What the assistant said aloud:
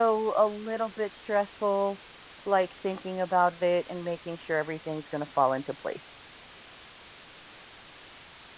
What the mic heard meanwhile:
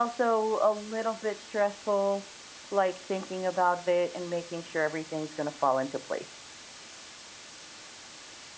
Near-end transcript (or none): none